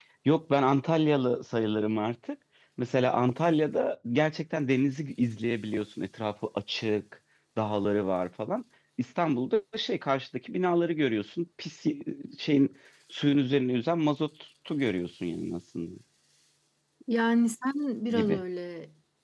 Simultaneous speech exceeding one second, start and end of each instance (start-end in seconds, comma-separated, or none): none